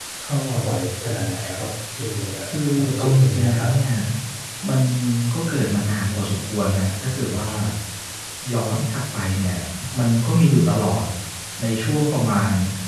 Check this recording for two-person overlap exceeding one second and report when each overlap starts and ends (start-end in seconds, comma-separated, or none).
2.5-3.7